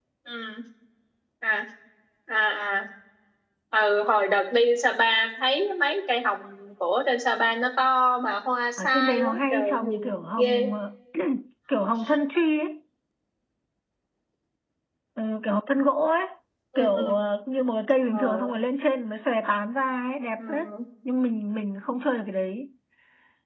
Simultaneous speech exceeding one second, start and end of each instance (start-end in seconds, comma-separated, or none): 8.8-10.7